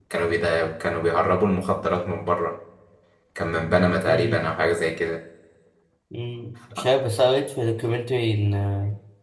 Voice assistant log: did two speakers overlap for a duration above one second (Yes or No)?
No